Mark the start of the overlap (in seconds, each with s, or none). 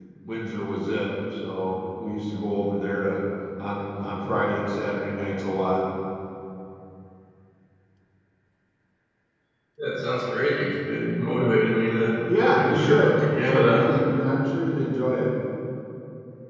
12.5 s